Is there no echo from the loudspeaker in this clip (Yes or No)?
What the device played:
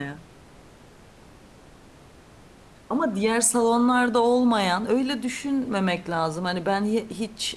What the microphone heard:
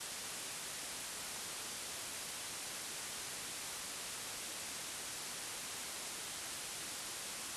Yes